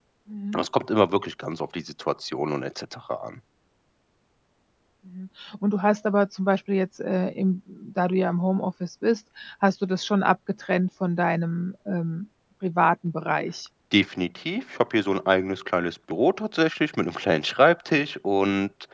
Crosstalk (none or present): none